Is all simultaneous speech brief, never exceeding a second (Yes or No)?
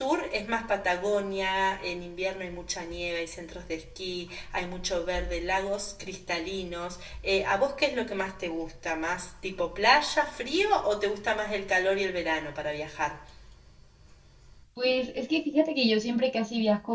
Yes